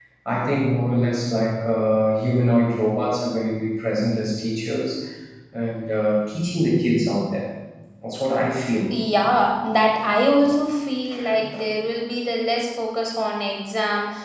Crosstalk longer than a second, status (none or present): none